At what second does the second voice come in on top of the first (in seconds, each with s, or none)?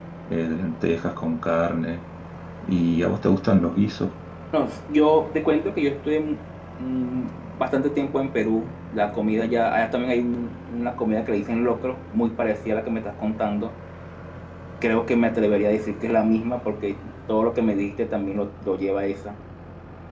none